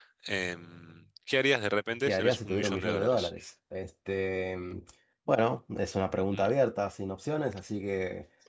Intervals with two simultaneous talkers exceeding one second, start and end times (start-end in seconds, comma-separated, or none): 2.0-3.3